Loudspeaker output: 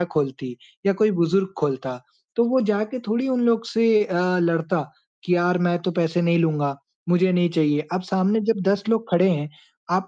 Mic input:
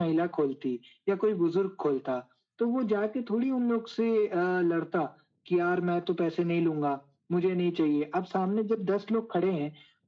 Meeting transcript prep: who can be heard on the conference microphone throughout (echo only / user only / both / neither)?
echo only